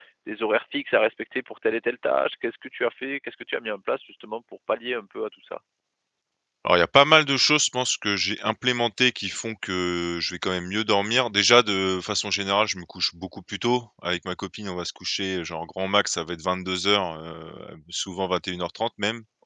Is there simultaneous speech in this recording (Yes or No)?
No